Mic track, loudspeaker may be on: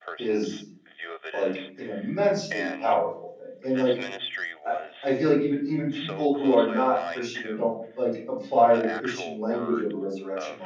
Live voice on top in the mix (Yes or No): Yes